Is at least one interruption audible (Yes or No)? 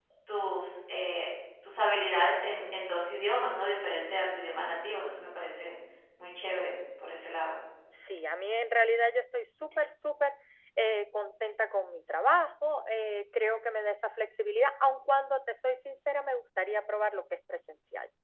No